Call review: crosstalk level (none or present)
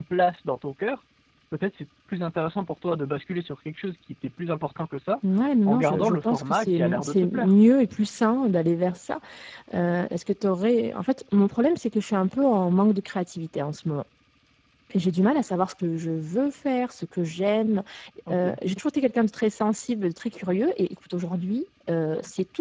present